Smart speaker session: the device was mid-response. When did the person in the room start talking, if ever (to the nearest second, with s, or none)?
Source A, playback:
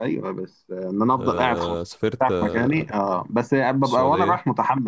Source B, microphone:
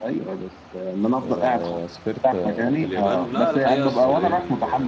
3 s